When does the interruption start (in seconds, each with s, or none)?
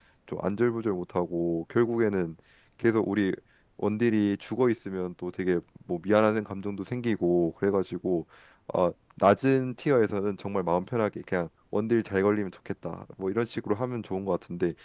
none